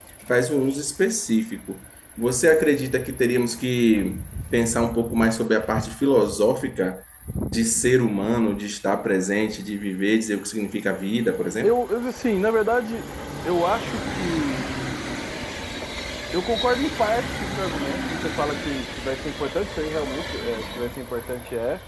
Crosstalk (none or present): none